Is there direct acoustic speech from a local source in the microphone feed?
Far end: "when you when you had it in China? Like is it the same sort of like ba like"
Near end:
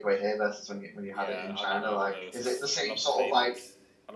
Yes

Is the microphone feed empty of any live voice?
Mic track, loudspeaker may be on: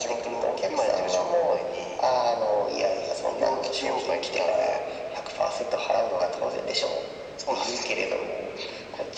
Yes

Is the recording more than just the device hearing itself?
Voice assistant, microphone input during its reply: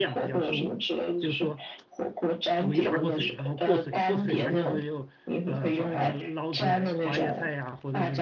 Yes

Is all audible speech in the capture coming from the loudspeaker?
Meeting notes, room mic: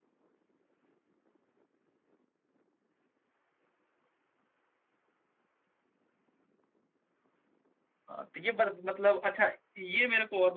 No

